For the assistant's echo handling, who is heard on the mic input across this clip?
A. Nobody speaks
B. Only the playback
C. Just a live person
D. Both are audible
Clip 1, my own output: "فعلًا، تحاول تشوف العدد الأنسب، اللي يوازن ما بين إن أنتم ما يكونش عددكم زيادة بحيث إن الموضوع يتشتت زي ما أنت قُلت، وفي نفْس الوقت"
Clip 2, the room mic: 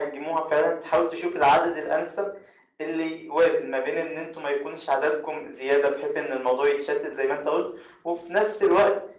B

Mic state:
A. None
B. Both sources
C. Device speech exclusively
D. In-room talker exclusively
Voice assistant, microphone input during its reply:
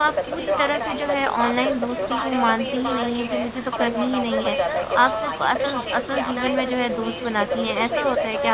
B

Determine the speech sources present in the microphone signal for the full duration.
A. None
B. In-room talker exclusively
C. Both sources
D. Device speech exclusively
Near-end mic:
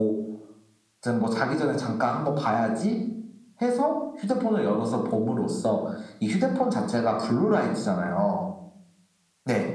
D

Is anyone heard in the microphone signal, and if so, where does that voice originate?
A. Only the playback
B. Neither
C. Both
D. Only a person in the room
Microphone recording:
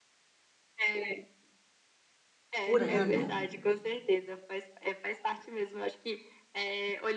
C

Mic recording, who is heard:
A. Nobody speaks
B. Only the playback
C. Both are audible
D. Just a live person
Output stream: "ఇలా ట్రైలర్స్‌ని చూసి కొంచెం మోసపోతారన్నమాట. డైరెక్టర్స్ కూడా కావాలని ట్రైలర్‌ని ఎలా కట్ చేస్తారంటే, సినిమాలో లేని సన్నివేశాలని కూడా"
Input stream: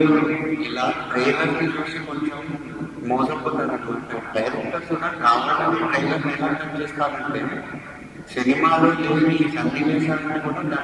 B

